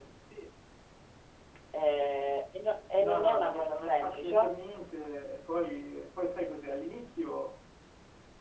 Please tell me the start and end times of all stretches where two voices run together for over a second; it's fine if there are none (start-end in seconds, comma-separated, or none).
3.0-4.4